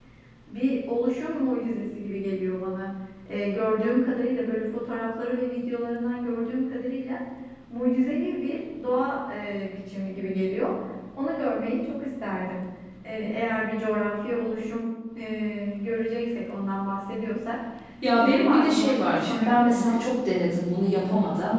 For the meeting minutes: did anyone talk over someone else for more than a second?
Yes, from 18.2 s

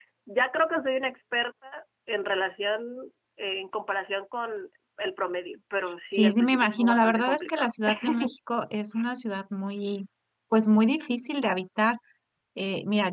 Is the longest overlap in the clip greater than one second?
Yes, from 6.1 s

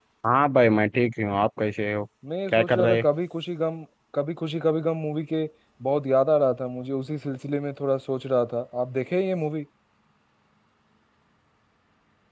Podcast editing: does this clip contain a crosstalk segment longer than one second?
No

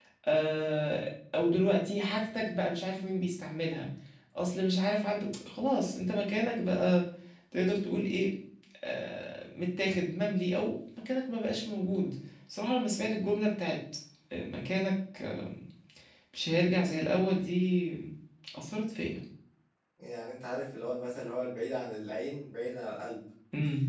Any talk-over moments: No

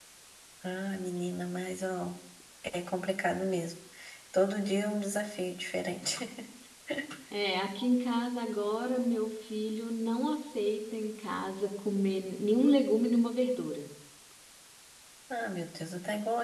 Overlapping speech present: No

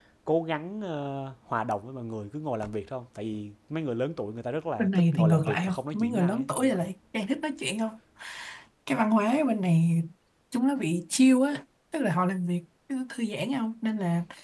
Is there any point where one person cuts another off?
Yes, from 4.8 s

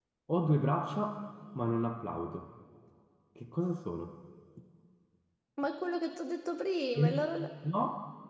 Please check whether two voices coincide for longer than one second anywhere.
No

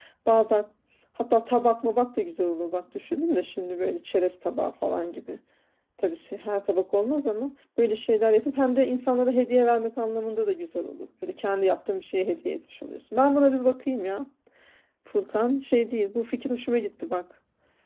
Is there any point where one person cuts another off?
No

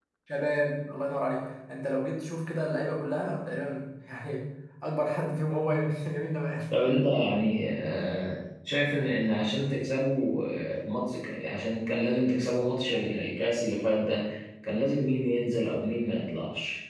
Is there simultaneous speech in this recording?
No

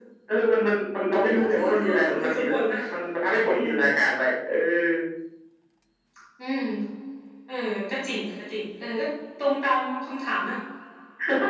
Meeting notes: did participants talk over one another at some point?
Yes, from 1.2 s

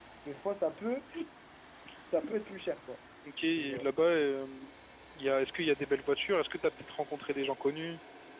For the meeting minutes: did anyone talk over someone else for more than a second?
No

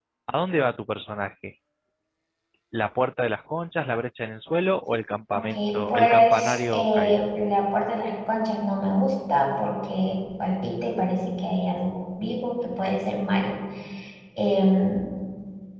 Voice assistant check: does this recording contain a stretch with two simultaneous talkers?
Yes, from 5.4 s

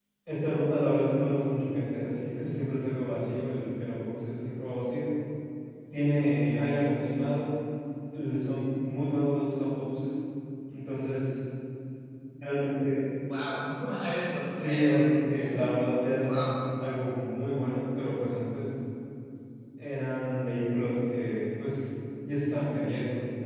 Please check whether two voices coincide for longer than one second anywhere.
Yes, from 14.5 s

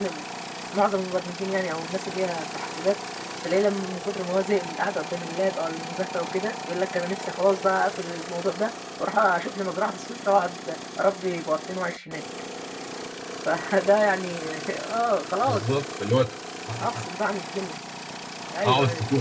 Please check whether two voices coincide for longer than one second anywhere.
No

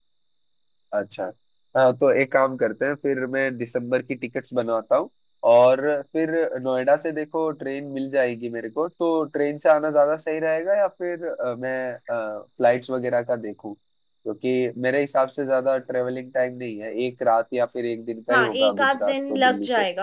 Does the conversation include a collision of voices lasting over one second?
Yes, from 18.3 s

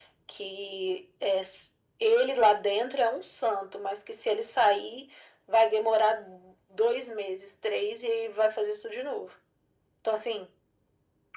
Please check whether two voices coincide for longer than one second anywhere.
No

